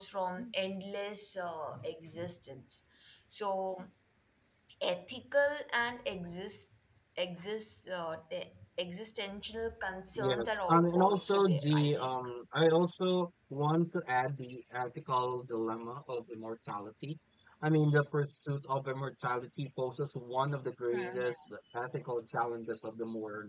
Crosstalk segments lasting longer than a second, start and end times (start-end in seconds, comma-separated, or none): 10.2-12.2